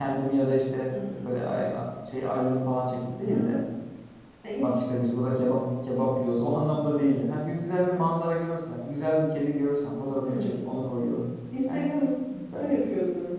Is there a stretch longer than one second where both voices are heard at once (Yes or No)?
No